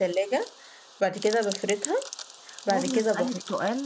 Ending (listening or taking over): taking over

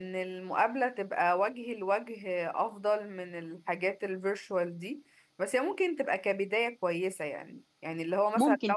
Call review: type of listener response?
listening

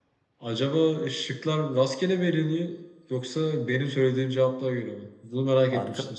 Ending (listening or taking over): taking over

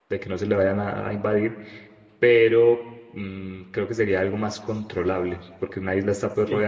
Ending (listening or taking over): listening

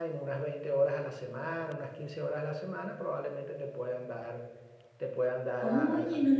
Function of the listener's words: taking over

